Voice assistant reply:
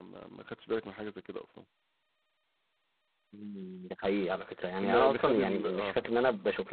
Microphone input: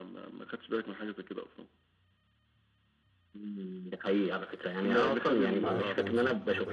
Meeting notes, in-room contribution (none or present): present